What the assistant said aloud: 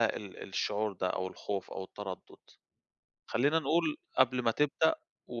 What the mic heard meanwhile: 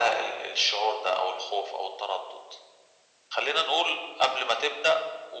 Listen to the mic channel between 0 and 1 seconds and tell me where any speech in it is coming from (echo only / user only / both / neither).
echo only